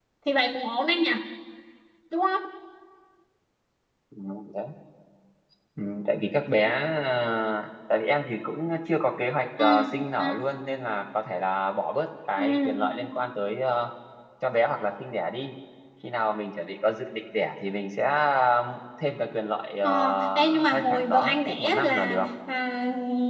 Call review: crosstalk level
present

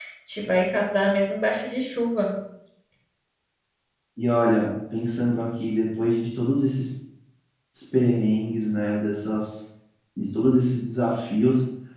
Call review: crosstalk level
none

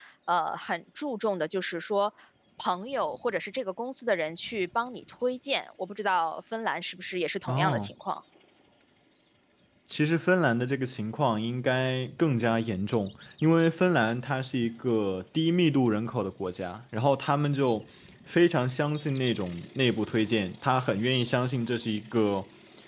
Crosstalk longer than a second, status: none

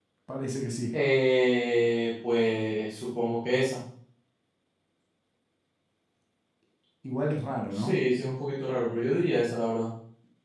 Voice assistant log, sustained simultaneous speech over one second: none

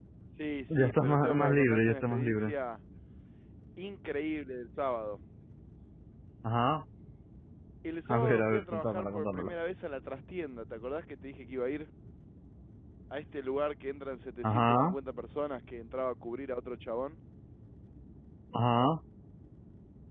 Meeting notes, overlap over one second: present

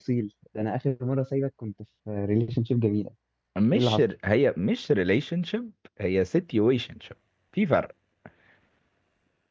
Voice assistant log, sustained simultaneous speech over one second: none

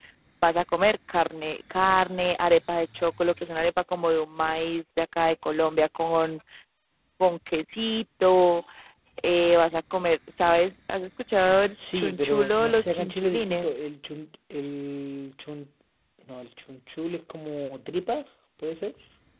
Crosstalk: present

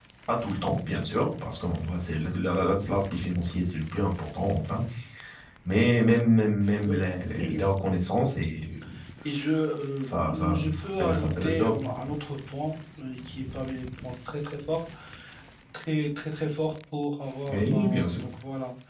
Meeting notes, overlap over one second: present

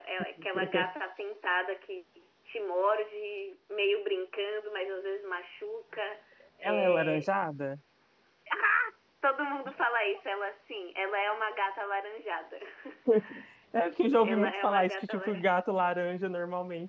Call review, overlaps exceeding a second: present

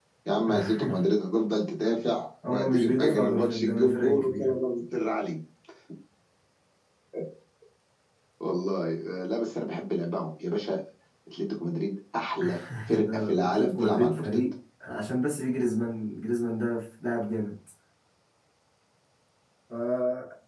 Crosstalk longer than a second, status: present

